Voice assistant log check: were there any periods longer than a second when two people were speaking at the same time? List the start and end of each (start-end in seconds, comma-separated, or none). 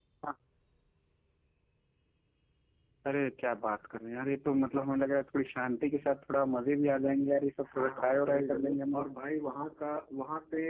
7.7-9.1